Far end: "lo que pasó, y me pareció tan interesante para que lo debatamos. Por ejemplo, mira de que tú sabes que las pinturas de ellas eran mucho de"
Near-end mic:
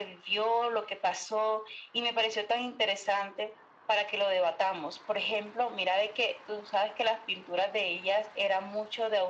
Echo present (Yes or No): Yes